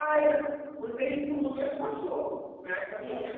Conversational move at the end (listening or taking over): taking over